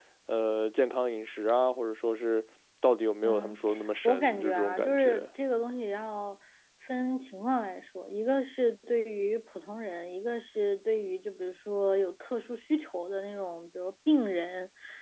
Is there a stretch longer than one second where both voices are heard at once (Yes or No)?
Yes